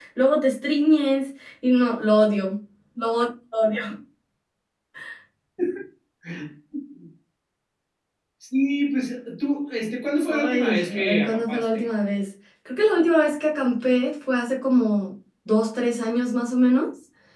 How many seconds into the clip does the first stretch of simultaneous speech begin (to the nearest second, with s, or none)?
10 s